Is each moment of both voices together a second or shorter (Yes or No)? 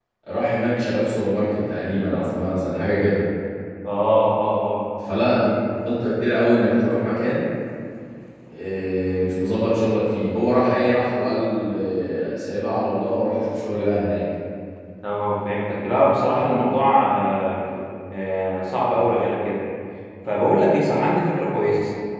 Yes